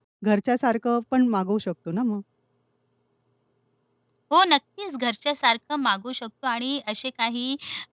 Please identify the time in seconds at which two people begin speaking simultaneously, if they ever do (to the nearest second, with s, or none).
none